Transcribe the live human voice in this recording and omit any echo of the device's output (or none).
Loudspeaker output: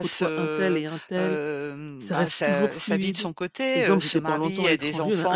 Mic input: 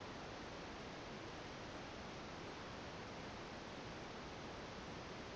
none